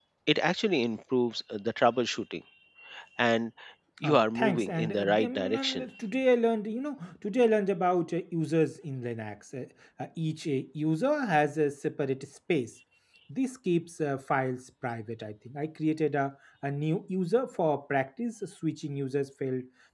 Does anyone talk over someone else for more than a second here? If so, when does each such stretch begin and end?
4.0-5.8

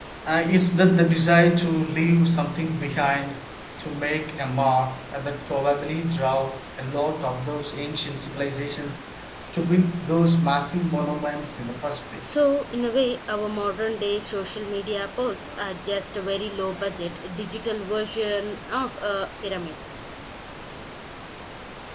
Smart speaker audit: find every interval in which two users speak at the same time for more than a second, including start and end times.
none

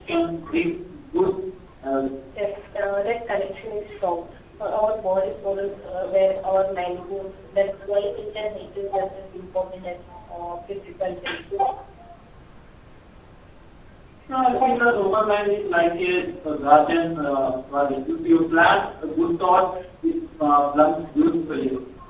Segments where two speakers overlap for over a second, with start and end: none

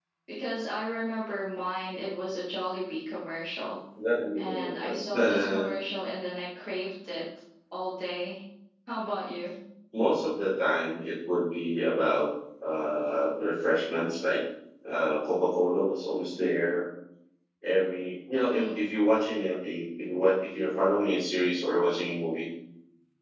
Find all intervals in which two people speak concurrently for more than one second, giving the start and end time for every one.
4.4-5.7

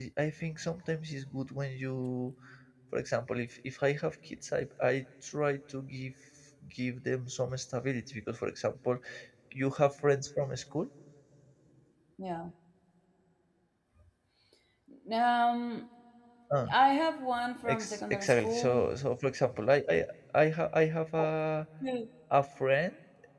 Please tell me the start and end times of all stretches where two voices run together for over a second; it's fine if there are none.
17.6-18.9

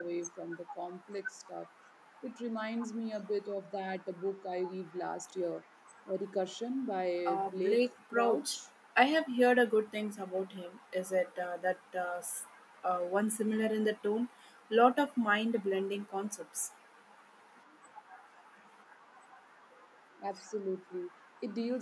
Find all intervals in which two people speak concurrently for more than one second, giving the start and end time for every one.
7.2-8.6

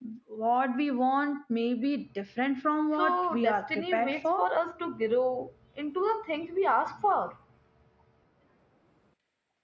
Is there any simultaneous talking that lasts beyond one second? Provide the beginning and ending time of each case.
3.0-4.4

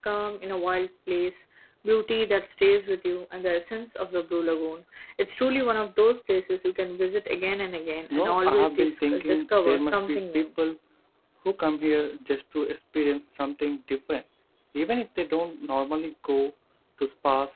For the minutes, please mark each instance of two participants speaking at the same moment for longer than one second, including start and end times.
8.1-10.5

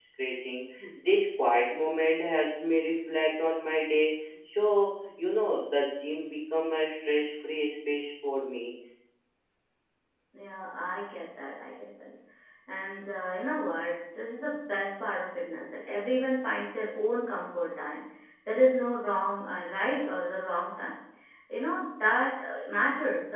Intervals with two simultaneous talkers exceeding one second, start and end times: none

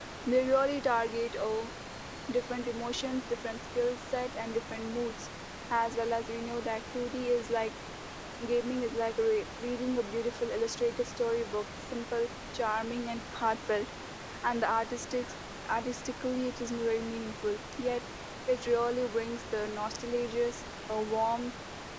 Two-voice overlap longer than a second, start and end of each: none

